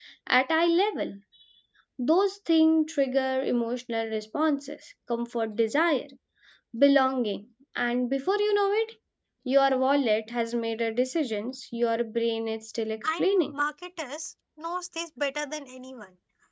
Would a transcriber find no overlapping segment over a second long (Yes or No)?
Yes